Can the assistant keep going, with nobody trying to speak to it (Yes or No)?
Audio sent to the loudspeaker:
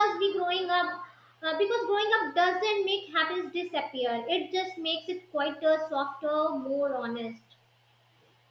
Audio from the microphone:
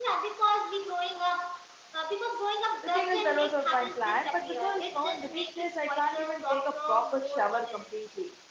No